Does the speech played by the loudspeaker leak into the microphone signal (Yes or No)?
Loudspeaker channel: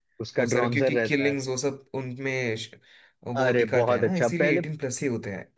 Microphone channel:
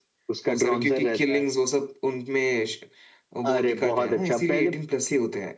Yes